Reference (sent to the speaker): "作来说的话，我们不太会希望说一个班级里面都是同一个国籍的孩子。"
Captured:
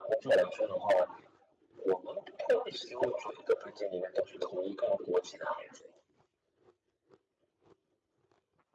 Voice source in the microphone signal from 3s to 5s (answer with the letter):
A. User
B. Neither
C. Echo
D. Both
C